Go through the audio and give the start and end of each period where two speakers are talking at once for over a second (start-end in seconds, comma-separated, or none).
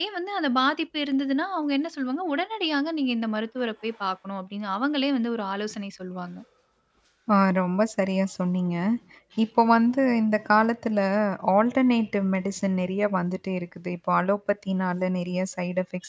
none